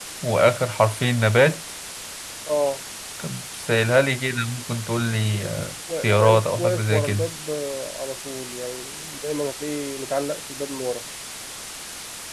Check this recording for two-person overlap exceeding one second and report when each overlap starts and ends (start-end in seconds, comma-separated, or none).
6.0-7.3